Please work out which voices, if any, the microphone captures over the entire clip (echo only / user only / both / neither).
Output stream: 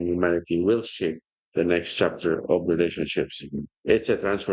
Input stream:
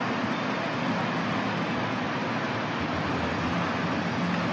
neither